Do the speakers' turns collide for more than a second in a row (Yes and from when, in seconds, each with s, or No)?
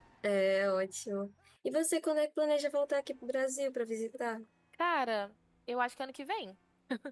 No